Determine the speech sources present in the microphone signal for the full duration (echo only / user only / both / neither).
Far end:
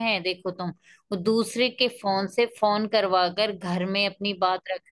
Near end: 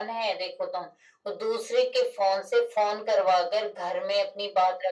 echo only